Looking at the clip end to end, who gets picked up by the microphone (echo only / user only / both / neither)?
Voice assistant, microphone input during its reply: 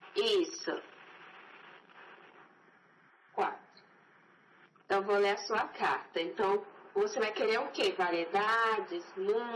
echo only